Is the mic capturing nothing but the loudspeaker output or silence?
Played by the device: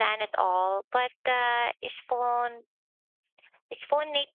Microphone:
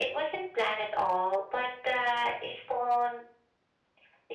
Yes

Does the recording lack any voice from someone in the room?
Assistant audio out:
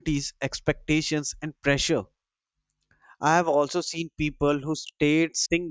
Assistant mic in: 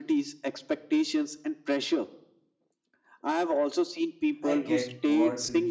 No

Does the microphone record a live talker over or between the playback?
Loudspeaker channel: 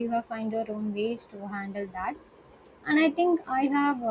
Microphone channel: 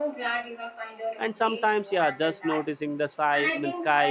Yes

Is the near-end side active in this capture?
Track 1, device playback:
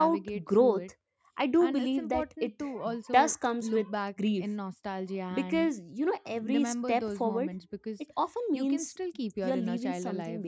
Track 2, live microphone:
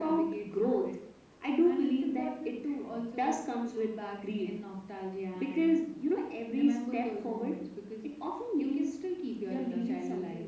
No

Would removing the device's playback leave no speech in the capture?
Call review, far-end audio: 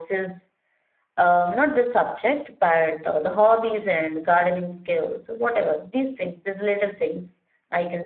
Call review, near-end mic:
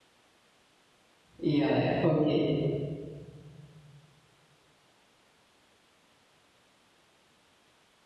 No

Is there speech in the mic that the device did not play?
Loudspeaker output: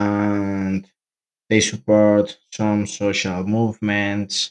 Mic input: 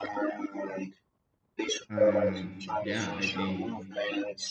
Yes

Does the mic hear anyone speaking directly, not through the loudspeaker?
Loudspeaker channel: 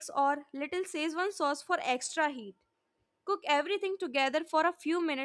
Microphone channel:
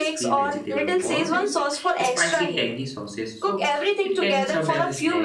Yes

